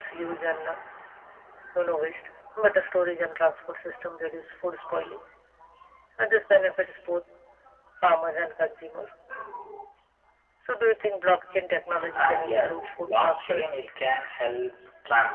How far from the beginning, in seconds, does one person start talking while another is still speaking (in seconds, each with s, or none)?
12.0 s